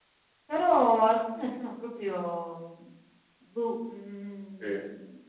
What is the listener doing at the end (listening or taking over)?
listening